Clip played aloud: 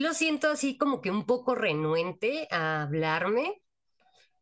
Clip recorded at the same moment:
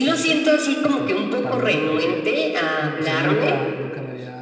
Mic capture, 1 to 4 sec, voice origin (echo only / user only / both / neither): both